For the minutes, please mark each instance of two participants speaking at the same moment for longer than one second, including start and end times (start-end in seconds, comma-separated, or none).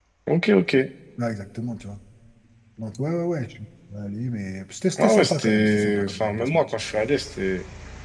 5.0-6.7